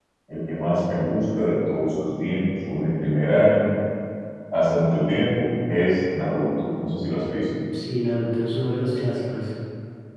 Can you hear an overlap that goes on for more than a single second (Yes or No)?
No